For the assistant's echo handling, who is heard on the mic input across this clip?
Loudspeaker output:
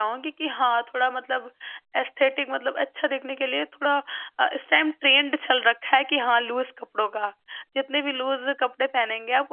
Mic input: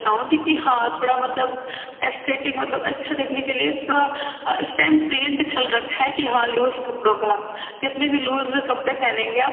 echo only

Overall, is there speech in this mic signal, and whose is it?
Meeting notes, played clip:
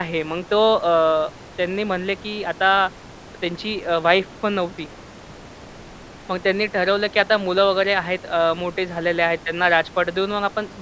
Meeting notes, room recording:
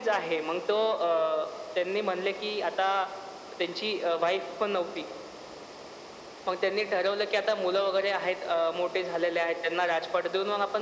echo only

